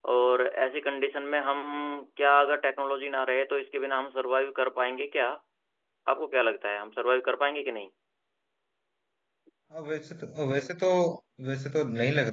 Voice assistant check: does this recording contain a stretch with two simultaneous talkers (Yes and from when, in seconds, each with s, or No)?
No